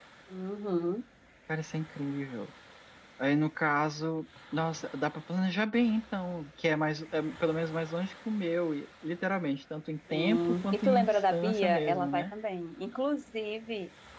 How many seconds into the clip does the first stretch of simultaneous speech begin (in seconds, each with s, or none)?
10.1 s